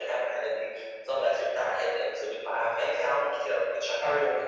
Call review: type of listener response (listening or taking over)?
taking over